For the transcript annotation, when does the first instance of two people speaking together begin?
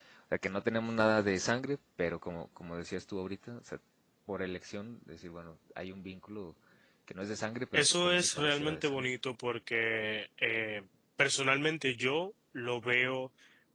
8 s

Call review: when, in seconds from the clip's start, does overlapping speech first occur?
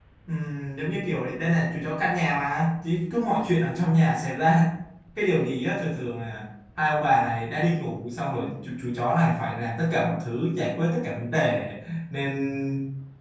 none

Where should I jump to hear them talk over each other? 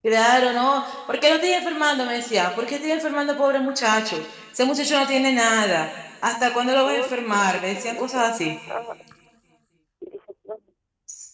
7 s

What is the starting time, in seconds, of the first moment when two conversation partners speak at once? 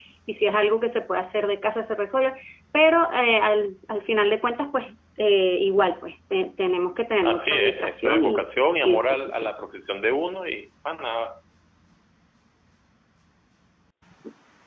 7 s

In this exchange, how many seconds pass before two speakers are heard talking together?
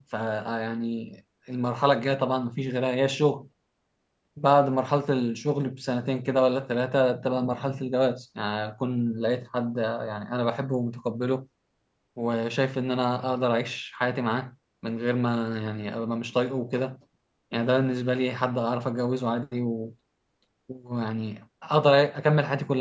none

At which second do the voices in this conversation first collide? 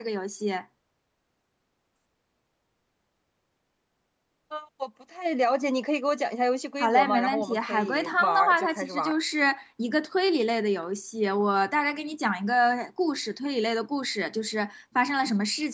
7 s

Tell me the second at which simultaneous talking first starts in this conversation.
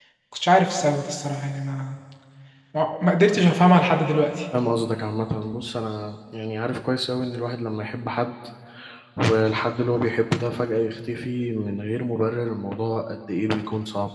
none

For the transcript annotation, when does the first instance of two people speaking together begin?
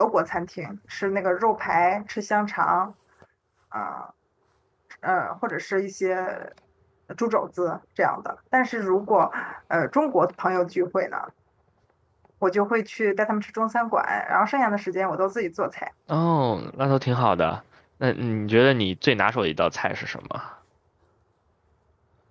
none

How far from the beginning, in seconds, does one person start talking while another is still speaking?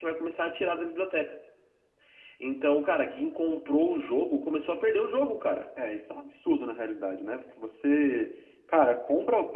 none

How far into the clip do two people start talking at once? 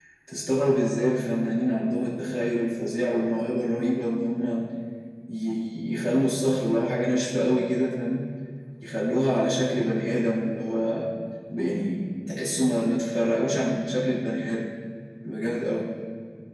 none

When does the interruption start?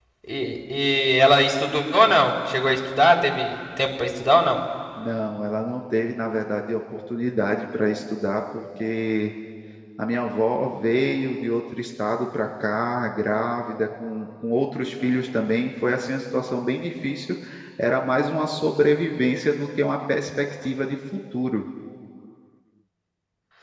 none

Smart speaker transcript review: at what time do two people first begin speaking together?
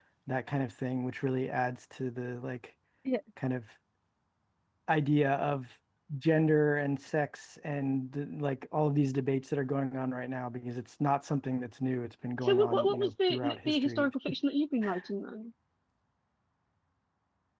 12 s

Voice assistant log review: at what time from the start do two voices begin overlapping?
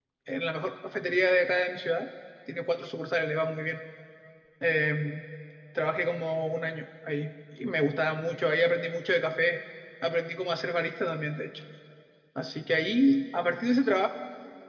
none

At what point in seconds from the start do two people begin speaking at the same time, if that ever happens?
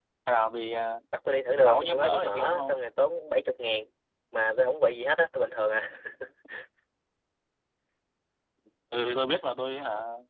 2 s

